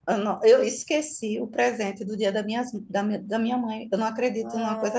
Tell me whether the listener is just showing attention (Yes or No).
No